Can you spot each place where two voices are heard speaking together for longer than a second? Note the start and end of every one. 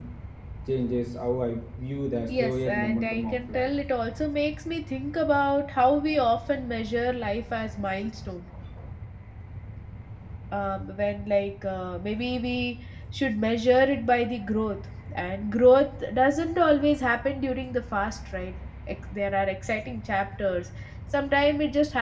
2.3-3.7

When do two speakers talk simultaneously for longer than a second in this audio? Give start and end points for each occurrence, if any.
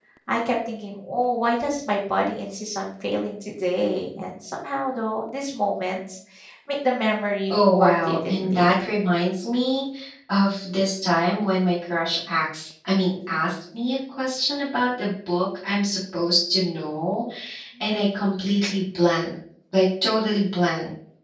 7.5-9.0

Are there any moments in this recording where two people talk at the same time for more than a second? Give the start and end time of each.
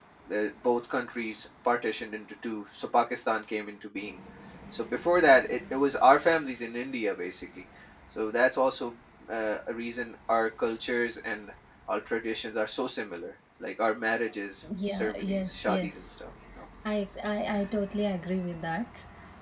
14.6-16.1

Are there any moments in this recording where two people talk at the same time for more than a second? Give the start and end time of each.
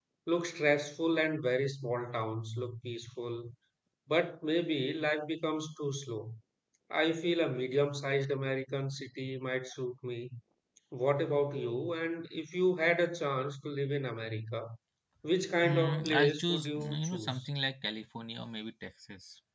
15.6-17.5

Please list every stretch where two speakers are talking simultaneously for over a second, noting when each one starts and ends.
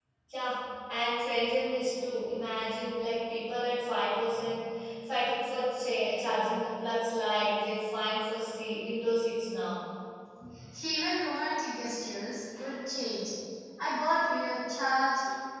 none

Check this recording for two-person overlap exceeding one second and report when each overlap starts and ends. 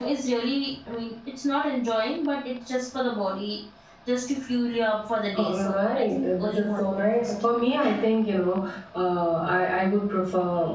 5.4-7.3

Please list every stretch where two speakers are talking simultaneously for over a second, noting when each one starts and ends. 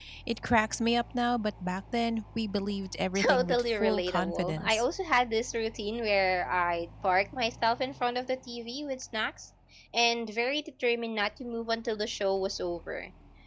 3.2-4.8

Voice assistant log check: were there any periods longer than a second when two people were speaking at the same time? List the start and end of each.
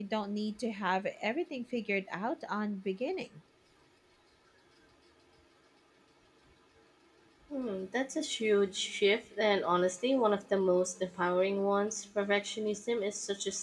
none

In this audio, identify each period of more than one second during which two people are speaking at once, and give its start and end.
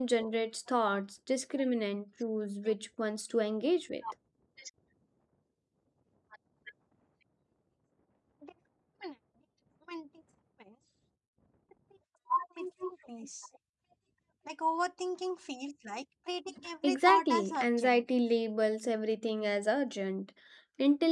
16.8-18.0

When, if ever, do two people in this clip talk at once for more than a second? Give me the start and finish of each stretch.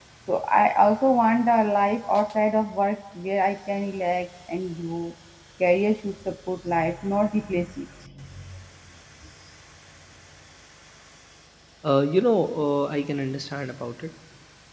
none

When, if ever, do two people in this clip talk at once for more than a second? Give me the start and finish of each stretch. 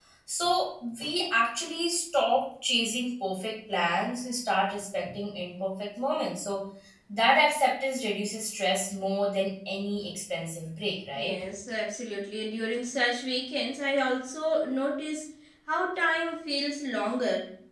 none

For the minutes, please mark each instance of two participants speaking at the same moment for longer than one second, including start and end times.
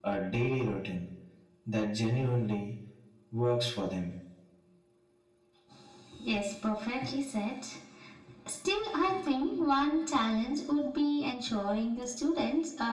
none

